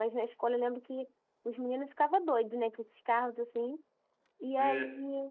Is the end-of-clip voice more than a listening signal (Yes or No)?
No